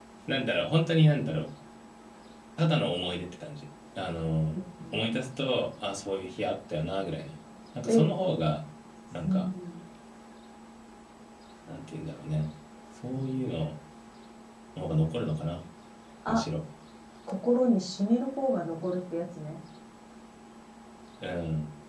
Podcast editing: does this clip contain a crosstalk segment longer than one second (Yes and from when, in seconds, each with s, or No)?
No